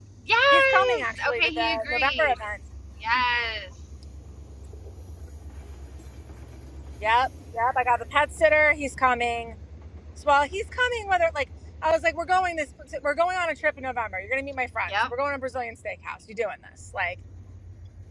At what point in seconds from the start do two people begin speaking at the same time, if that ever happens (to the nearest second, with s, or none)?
1 s